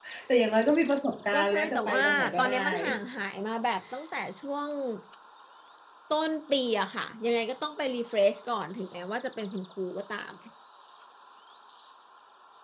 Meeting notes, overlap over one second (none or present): present